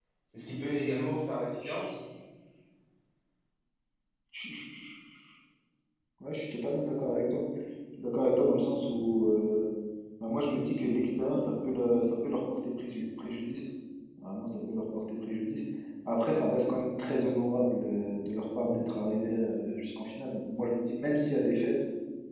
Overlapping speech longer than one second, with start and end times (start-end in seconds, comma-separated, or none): none